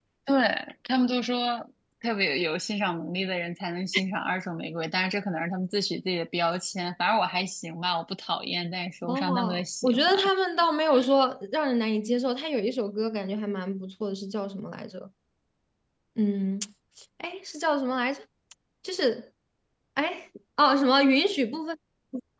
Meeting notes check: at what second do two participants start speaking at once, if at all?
9.0 s

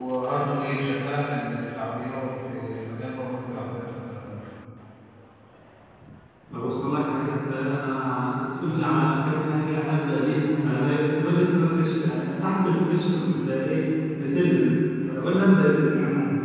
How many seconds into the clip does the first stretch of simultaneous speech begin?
none

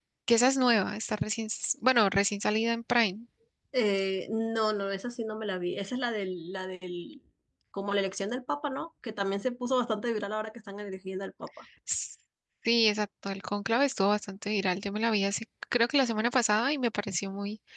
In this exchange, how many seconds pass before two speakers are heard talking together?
none

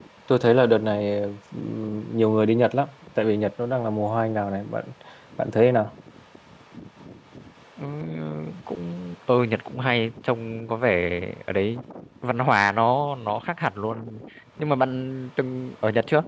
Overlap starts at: none

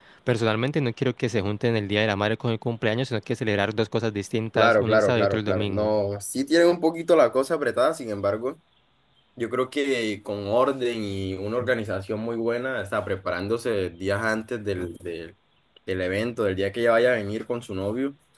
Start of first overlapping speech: 4.5 s

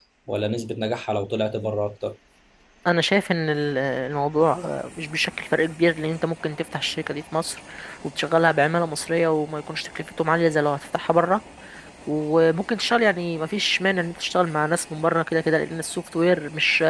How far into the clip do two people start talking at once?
none

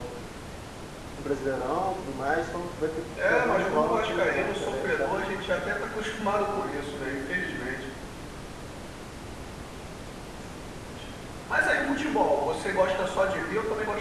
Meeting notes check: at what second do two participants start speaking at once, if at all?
3.2 s

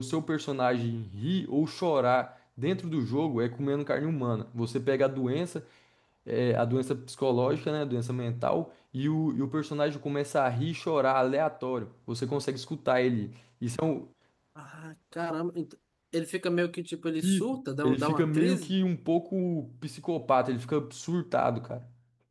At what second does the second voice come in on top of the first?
17.2 s

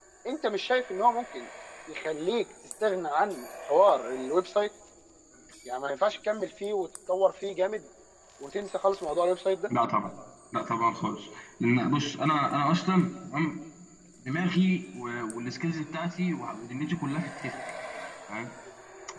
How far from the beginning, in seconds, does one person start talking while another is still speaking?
none

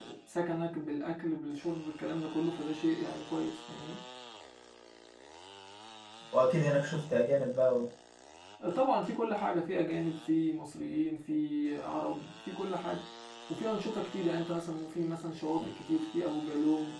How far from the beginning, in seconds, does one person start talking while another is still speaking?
none

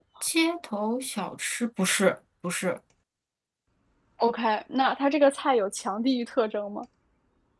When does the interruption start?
none

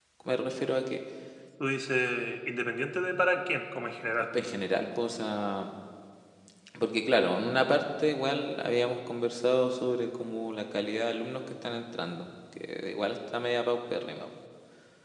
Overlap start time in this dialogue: none

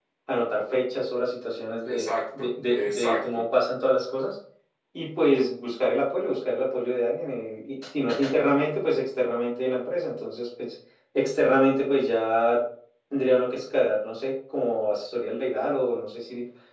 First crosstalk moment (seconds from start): 1.8 s

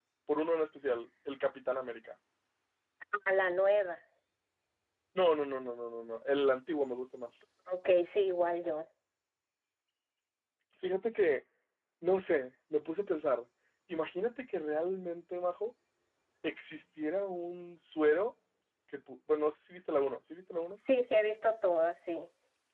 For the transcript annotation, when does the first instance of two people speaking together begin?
none

